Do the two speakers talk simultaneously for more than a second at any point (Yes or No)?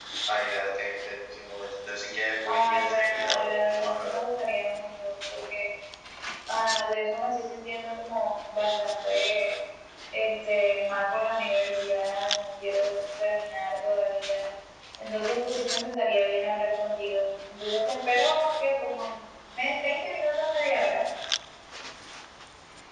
Yes